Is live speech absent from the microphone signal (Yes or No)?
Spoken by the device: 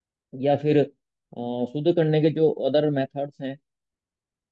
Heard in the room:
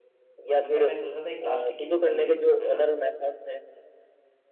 No